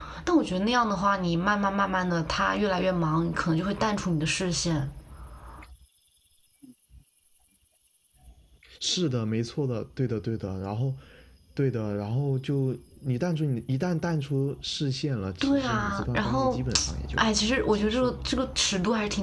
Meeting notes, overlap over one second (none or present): present